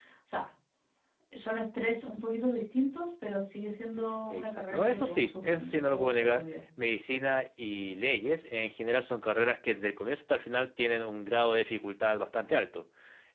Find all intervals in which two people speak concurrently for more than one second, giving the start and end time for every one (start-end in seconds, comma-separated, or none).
4.3-6.4